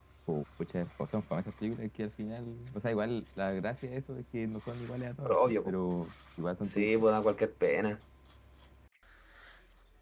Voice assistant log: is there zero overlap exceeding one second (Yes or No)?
Yes